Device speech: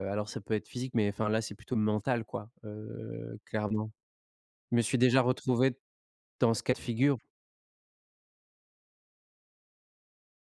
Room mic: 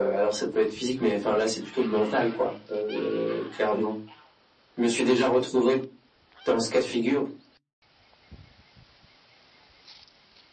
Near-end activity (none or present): none